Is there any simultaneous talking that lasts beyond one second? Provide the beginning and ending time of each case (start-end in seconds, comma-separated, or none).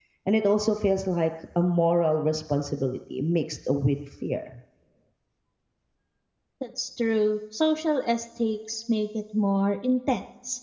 none